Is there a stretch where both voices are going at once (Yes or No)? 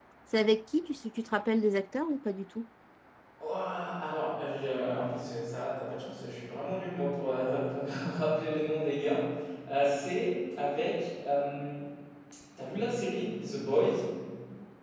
No